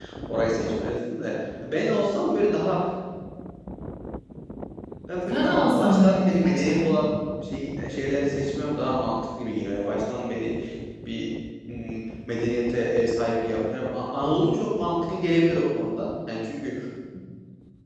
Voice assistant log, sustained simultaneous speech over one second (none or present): present